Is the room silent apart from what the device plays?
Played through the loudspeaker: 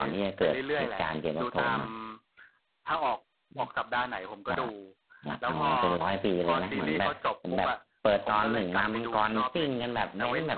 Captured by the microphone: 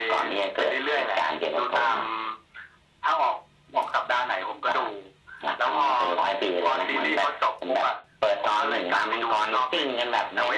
Yes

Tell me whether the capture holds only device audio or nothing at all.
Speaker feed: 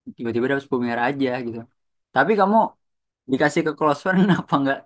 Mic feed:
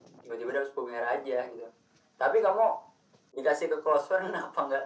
Yes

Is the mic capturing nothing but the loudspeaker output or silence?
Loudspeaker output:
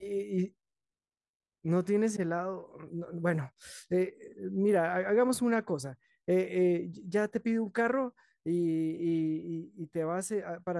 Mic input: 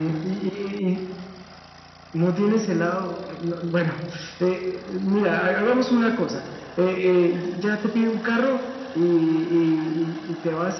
Yes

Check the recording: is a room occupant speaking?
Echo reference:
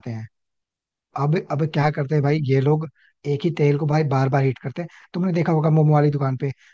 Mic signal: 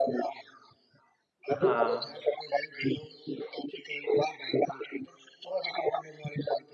Yes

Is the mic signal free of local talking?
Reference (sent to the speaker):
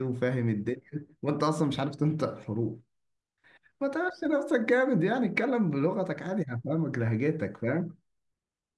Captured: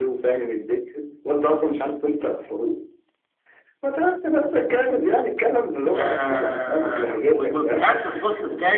No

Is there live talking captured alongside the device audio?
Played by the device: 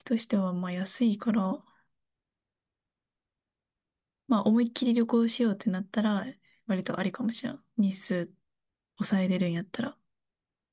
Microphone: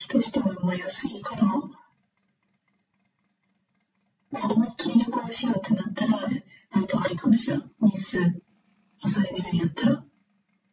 No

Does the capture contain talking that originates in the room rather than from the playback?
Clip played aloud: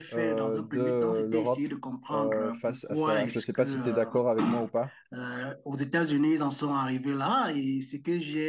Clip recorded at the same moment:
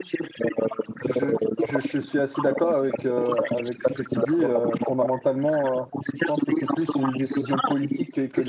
Yes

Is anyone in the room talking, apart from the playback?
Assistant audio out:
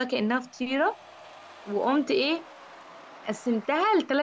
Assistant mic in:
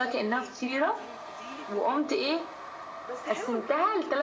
Yes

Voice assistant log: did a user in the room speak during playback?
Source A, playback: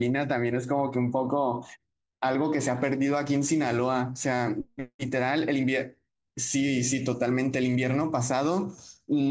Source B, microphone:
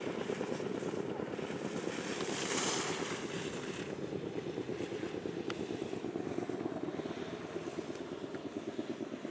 No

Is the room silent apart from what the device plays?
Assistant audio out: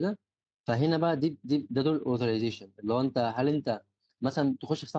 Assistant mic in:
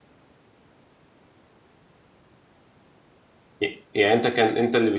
No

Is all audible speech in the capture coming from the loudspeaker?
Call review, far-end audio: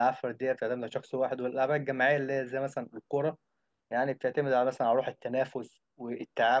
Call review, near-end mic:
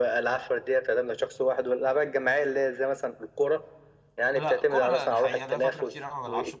No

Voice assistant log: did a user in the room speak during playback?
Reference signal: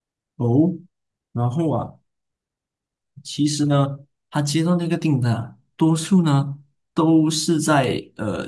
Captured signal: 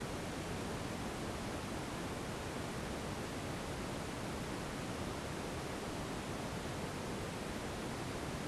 No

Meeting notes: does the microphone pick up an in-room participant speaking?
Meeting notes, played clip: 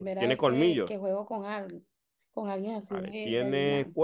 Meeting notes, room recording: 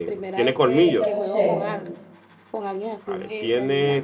Yes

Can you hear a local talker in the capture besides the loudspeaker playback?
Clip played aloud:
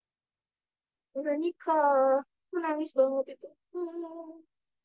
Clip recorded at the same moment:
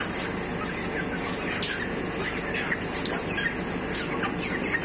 No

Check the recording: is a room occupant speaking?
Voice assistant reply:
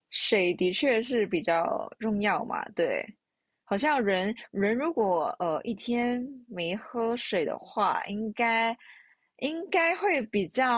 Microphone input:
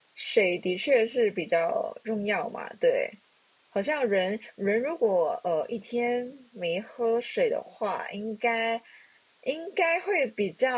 No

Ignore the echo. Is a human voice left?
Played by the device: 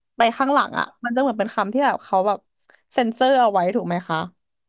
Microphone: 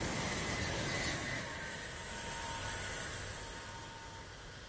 No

